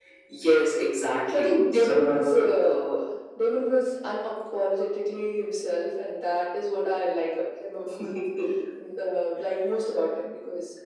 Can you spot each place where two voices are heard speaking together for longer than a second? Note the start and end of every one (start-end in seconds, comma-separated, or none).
1.3-3.0